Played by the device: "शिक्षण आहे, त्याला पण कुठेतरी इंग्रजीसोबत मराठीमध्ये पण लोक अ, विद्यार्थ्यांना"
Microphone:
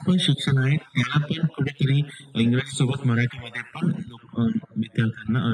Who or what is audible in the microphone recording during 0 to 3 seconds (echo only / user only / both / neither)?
echo only